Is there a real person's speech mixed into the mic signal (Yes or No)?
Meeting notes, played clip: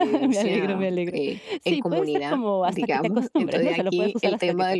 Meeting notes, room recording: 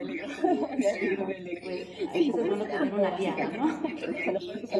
Yes